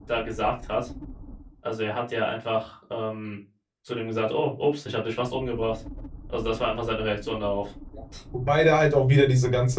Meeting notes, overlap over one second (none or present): none